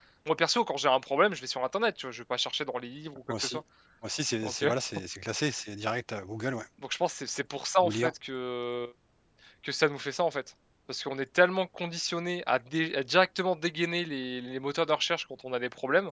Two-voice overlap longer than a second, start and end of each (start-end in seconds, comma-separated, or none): none